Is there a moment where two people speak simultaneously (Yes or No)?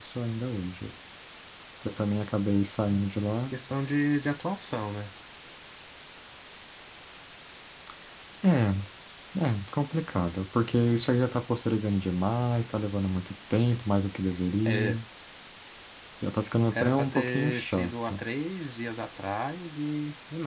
Yes